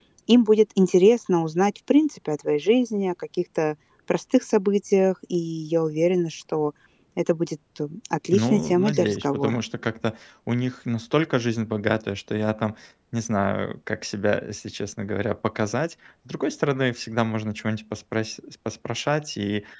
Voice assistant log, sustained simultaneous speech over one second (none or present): present